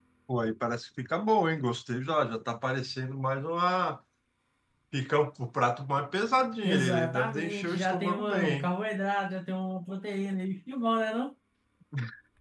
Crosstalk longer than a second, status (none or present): present